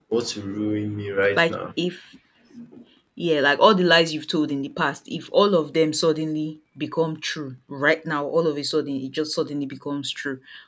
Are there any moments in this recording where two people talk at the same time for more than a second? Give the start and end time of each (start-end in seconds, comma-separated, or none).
none